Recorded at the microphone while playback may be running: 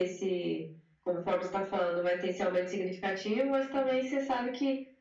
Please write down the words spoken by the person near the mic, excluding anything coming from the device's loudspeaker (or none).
none